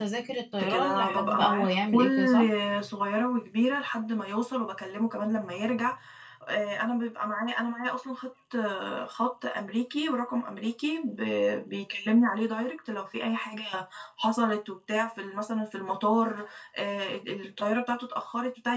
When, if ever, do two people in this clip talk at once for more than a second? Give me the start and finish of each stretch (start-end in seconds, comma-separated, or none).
0.6-2.4